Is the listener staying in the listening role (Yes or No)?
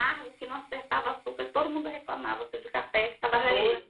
Yes